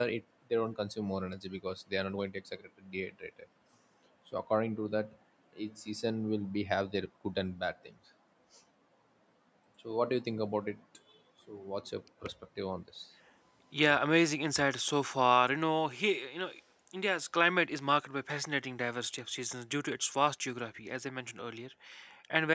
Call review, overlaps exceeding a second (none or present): none